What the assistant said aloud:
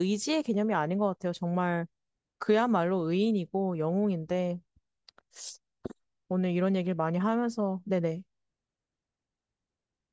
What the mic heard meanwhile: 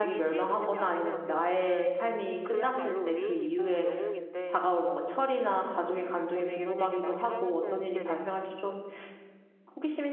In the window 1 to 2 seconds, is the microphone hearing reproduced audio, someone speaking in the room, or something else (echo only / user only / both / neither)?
both